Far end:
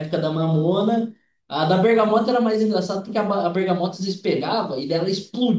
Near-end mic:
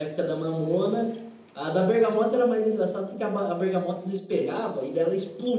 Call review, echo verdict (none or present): present